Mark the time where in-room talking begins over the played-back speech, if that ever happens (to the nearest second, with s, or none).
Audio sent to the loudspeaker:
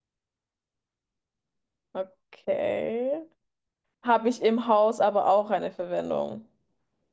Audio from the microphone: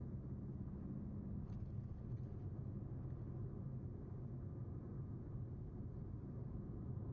none